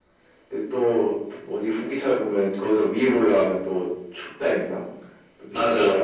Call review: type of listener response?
taking over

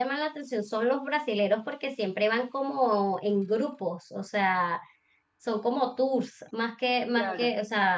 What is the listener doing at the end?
listening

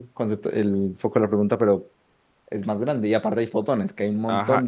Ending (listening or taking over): taking over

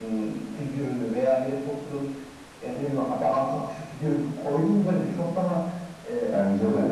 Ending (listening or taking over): listening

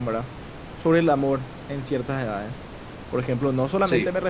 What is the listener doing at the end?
listening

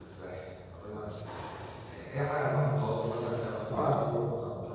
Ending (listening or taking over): listening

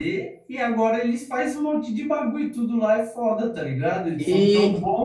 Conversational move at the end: listening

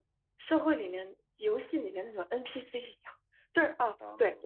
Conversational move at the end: listening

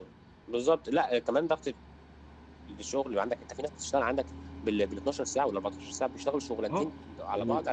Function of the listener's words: taking over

